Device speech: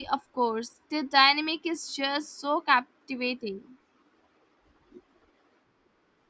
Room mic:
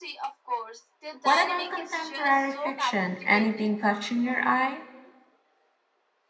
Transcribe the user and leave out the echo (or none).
What about contemporary fiction? Anything catching your eye?